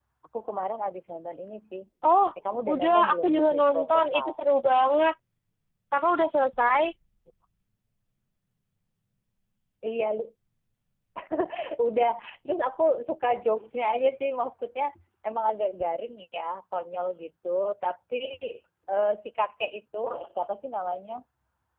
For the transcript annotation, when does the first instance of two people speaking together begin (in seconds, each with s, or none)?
2.7 s